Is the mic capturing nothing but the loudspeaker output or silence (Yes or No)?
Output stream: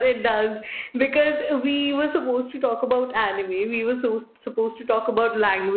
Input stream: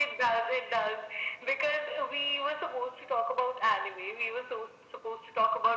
Yes